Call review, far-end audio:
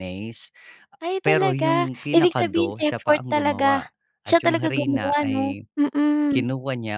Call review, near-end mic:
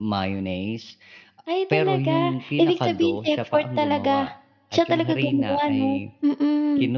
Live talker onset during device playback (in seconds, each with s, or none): none